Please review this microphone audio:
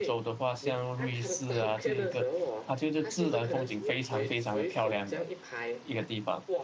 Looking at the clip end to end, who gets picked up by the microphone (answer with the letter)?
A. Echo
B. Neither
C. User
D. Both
D